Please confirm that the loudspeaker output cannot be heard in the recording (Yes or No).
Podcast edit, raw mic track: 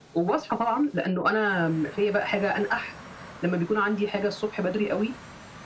No